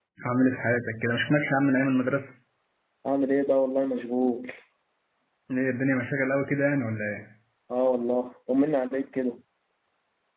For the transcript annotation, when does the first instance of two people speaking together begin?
none

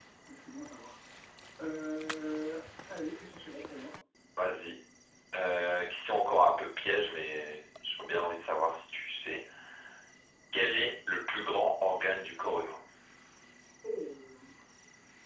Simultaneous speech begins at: none

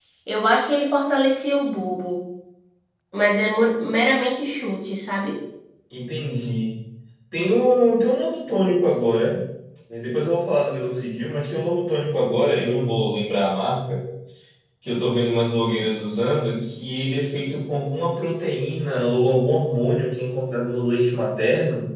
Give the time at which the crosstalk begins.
none

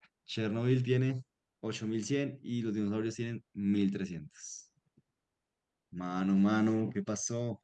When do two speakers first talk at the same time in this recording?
none

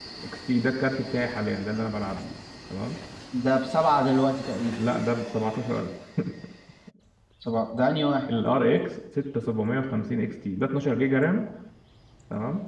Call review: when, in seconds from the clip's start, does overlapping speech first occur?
none

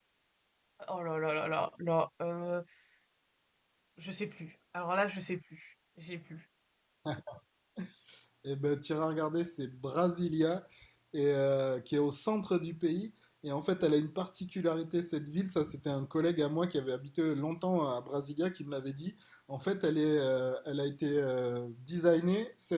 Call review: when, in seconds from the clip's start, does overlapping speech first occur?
none

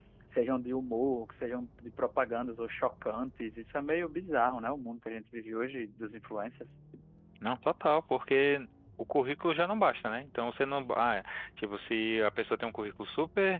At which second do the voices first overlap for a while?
none

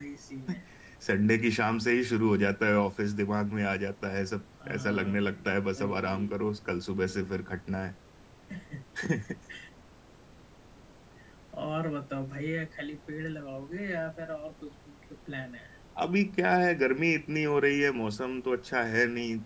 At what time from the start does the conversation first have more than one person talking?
5 s

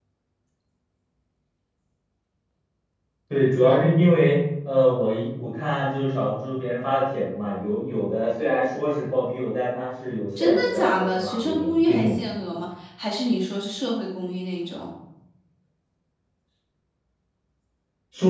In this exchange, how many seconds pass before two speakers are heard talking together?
10 s

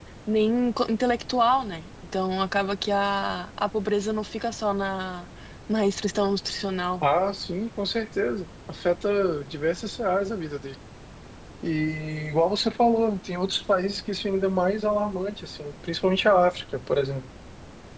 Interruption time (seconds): none

